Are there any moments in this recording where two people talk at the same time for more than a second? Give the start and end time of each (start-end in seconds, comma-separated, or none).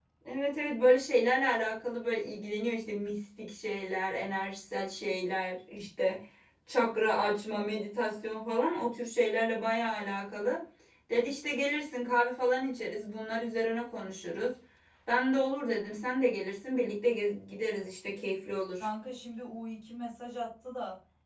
none